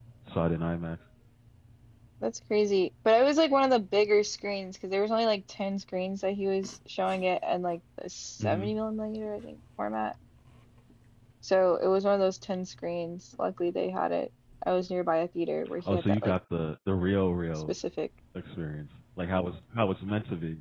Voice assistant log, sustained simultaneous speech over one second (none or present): none